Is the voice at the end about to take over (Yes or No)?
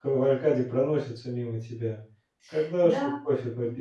Yes